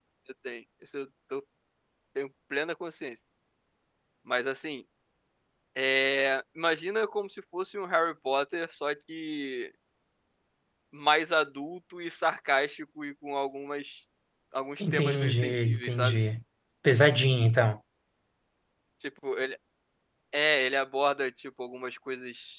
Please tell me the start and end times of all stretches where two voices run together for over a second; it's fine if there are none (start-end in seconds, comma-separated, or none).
14.8-16.2